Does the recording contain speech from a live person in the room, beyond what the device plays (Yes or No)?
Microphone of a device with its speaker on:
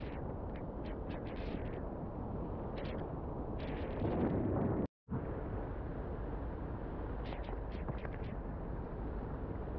No